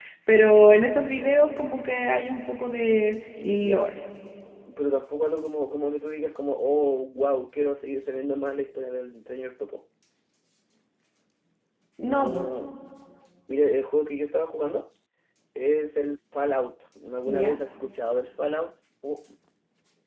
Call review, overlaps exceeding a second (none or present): none